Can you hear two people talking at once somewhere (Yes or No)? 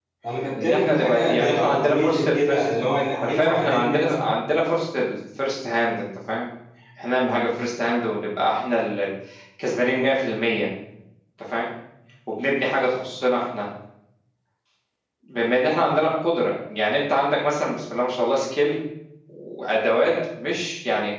Yes